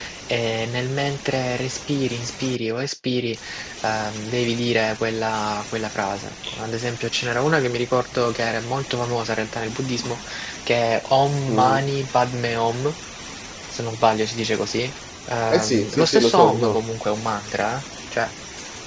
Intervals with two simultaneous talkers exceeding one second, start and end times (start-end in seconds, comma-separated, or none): 15.5-16.8